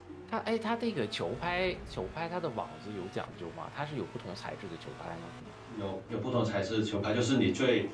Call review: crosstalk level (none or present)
none